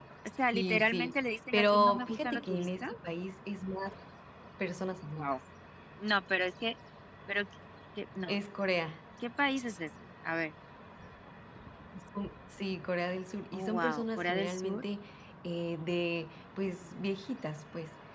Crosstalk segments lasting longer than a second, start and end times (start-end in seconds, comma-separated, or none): 0.5-2.8, 13.5-14.8